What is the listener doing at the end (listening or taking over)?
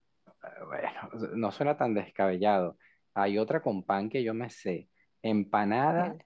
listening